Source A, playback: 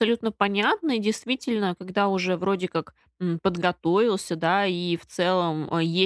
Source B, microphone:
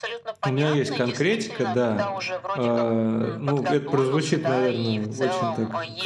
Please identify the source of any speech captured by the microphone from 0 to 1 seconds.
both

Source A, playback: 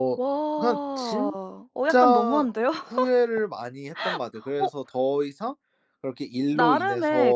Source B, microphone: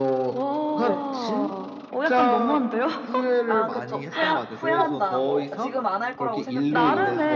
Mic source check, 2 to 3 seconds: echo only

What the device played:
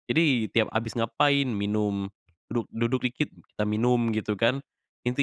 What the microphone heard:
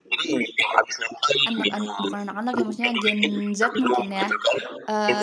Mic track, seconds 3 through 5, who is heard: both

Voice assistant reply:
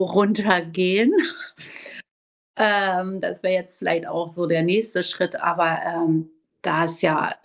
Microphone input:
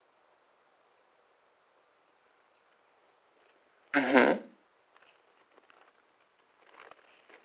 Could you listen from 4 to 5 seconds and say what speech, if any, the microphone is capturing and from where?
user only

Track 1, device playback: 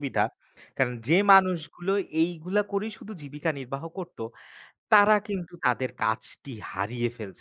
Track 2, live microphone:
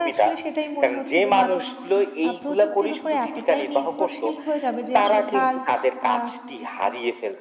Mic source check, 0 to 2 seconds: both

